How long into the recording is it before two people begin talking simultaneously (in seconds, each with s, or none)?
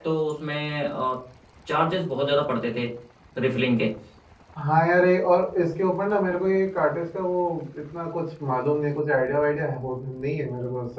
none